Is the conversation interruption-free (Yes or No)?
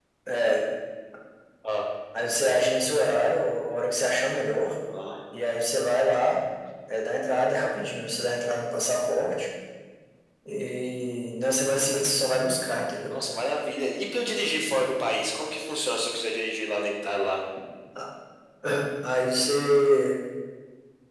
Yes